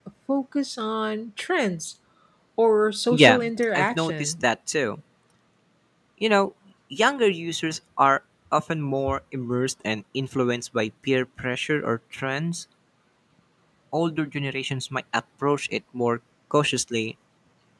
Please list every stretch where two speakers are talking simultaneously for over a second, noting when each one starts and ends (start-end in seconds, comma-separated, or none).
3.1-4.3